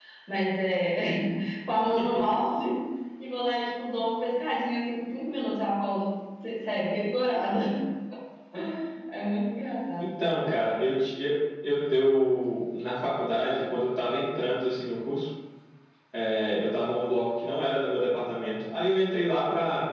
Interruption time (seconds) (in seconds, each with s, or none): none